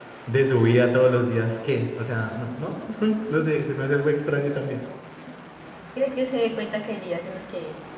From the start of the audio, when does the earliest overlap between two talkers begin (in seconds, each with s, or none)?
none